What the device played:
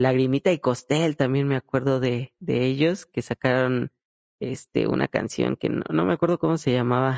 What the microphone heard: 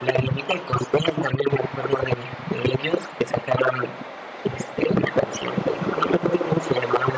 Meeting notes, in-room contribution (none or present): none